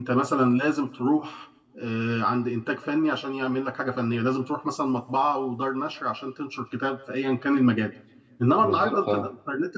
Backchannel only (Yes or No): Yes